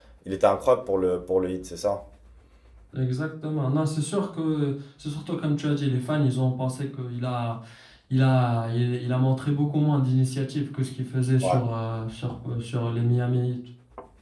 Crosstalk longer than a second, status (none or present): none